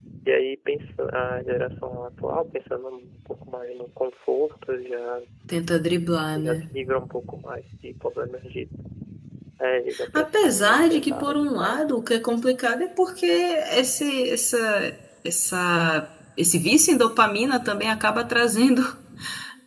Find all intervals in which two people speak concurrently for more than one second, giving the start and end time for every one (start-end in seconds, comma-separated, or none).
10.2-11.8